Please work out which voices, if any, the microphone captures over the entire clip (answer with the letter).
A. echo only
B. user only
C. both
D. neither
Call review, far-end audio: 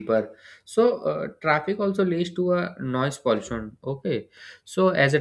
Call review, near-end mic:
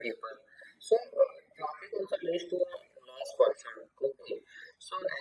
A